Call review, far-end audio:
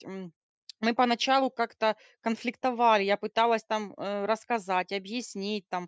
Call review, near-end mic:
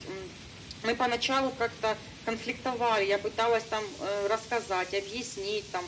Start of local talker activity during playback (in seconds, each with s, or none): none